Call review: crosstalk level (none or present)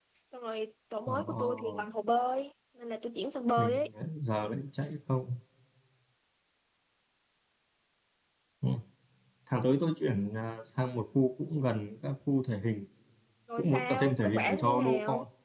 present